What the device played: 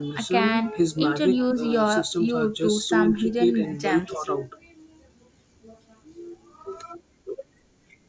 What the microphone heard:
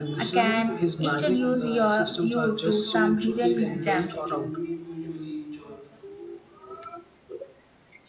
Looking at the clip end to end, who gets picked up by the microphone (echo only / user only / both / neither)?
both